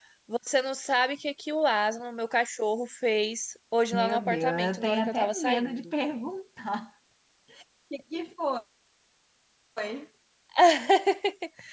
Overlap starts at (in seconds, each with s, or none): 3.9 s